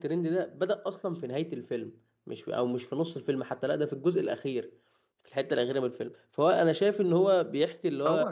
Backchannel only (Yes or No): Yes